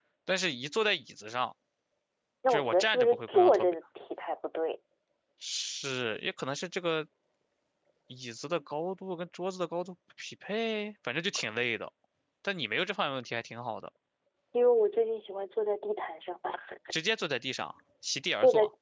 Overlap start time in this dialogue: 2.5 s

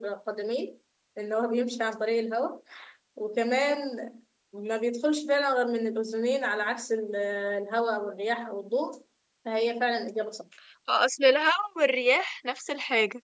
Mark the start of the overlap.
none

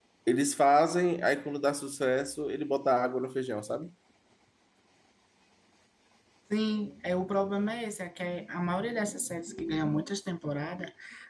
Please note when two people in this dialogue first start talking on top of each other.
none

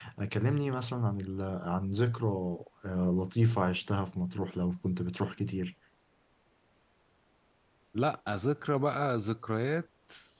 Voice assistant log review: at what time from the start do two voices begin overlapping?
none

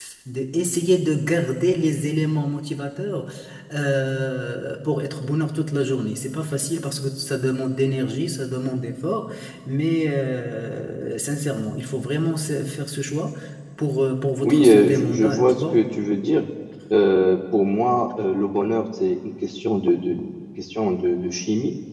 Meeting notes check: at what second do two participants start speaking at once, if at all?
14.4 s

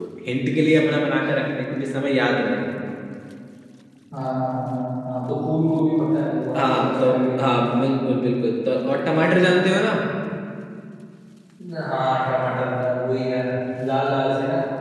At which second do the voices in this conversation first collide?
6.5 s

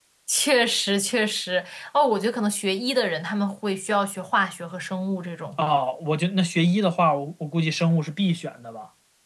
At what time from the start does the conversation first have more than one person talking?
none

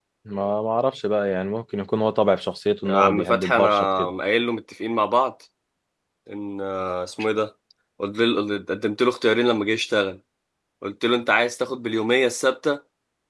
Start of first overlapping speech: 2.9 s

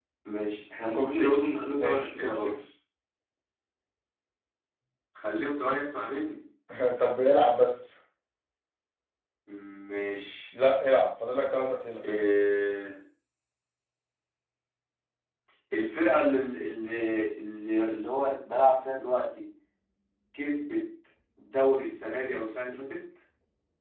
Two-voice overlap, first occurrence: 0.9 s

